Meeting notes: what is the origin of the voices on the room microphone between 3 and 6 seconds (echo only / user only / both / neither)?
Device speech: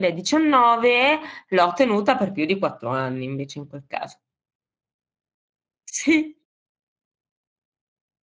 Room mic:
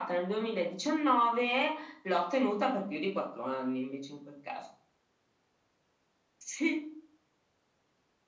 echo only